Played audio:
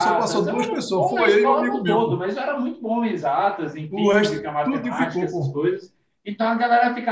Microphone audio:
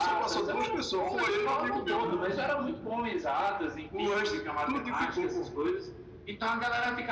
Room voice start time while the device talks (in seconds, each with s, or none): 2.0 s